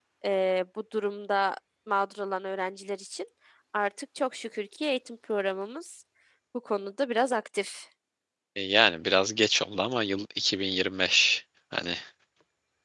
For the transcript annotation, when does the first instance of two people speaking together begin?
none

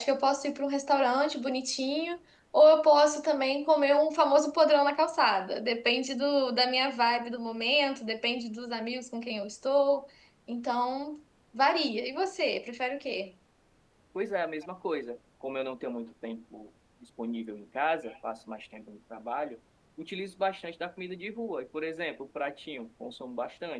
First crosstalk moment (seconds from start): none

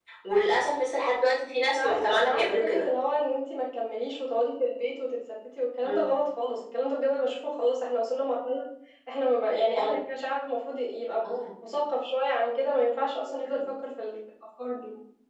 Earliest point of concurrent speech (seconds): 1.7 s

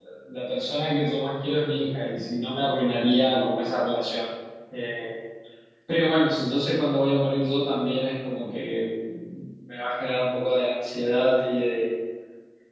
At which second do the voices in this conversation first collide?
none

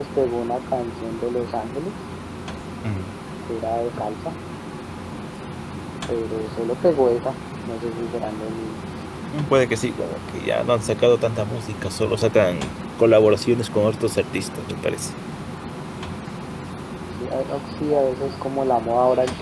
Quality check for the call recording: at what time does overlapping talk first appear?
none

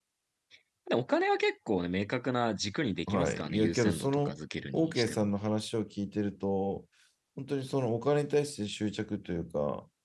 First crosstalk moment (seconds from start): 3.1 s

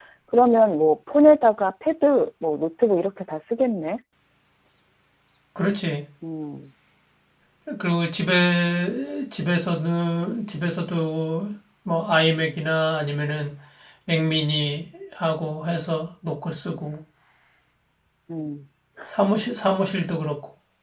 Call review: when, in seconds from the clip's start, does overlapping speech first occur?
none

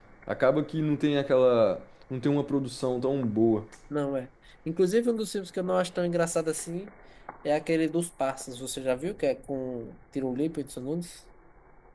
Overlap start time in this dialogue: none

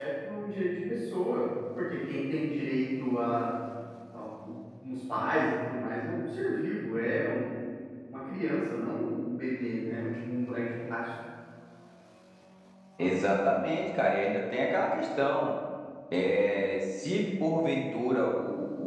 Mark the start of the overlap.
none

